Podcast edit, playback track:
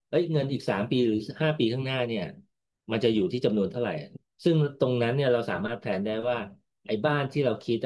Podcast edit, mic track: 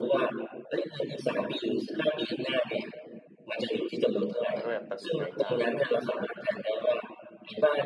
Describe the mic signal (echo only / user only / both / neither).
both